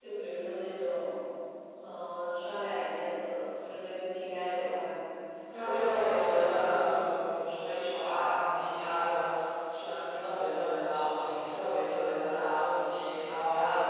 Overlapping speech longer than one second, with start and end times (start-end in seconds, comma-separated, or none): 5.6-7.0